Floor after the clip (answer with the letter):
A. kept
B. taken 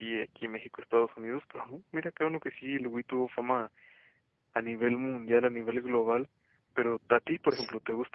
A